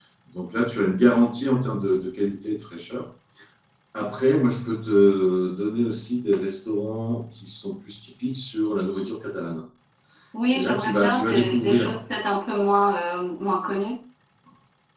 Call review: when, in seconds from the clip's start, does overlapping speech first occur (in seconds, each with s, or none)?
10.5 s